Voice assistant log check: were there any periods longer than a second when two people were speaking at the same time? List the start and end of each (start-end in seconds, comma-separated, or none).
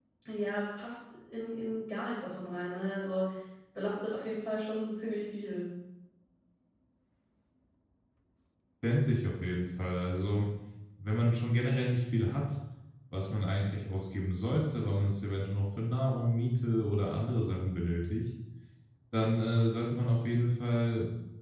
none